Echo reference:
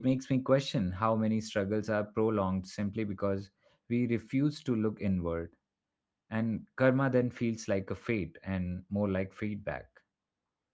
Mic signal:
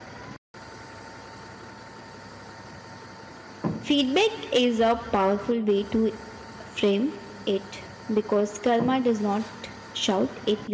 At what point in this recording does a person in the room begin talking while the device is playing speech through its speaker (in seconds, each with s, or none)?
3.8 s